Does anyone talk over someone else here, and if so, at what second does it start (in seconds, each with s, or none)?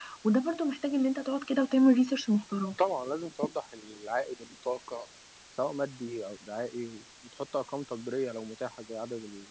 none